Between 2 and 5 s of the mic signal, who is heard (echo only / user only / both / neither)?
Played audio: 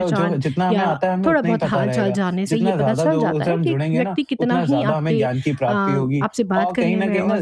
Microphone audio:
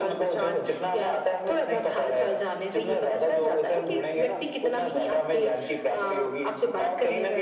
echo only